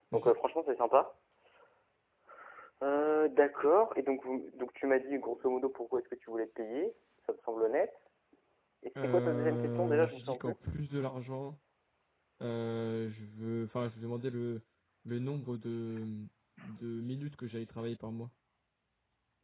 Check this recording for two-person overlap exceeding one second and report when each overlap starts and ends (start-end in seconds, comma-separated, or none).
9.0-10.5